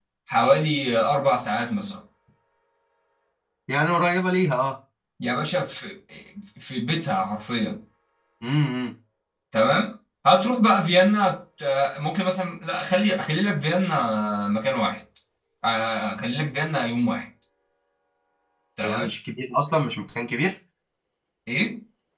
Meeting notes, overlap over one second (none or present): none